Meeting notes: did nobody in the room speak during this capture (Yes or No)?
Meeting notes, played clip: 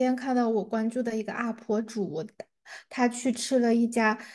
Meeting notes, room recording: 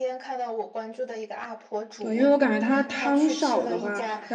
No